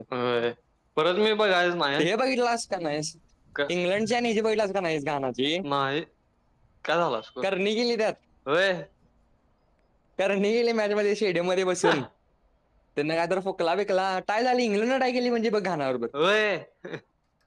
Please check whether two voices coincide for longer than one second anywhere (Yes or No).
No